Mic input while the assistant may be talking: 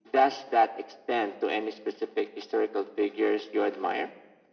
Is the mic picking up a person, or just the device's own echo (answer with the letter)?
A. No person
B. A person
A